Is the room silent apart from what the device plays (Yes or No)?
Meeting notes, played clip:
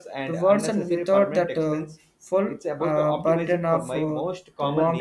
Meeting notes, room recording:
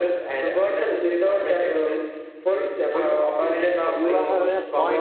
No